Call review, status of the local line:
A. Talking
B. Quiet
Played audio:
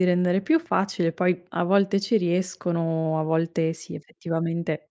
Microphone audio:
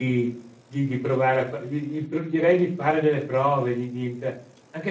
A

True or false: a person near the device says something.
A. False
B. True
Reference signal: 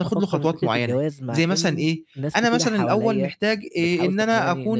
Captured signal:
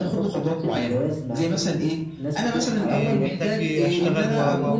B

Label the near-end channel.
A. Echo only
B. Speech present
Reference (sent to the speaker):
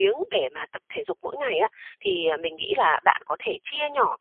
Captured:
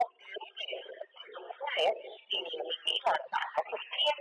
A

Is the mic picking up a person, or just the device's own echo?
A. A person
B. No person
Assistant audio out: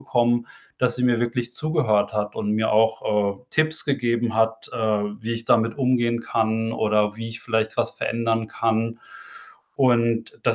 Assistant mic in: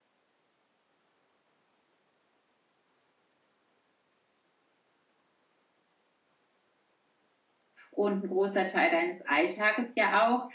A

